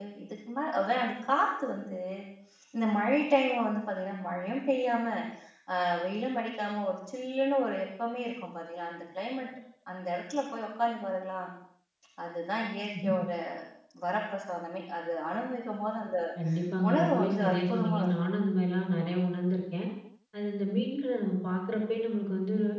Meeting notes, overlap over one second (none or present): present